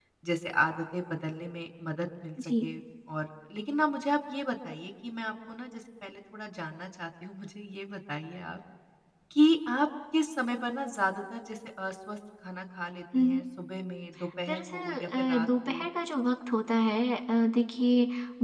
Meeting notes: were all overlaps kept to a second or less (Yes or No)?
No